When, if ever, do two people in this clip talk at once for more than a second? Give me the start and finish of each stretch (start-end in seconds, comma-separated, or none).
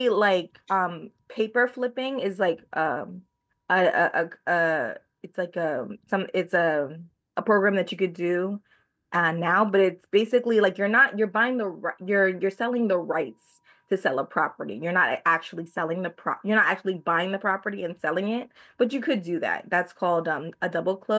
none